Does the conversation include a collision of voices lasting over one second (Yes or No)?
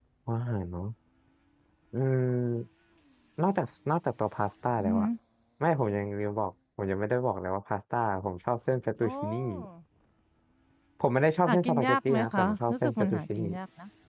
Yes